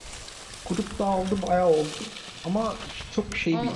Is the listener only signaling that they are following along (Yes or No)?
Yes